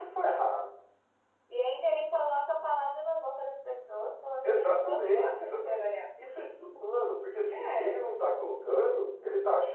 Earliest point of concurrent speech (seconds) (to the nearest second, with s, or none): 4 s